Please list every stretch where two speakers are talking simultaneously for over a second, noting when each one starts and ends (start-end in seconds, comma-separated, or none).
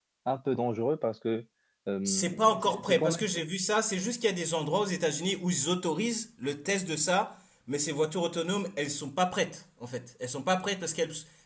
2.0-3.3